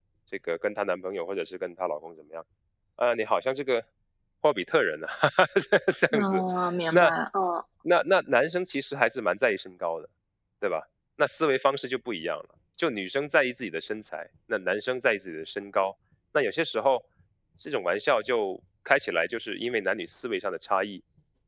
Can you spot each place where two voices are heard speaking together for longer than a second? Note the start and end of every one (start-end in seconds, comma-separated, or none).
none